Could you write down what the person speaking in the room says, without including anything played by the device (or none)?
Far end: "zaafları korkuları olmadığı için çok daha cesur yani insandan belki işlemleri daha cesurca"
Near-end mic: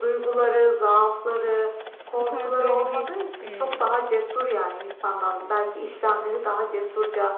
bu tarz böyle bir e,